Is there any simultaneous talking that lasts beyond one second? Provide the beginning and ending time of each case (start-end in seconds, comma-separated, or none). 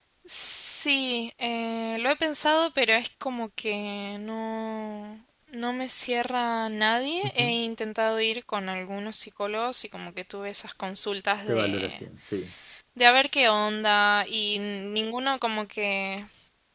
none